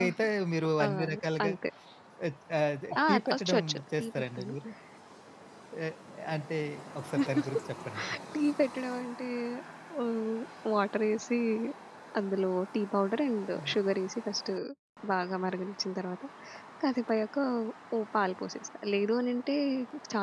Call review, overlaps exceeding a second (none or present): present